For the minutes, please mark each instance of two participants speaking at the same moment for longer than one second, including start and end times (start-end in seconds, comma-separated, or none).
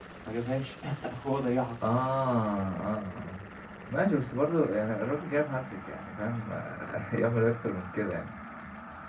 none